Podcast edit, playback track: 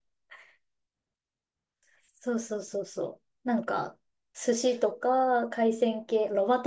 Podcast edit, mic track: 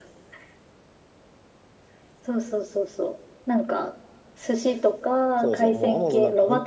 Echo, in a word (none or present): present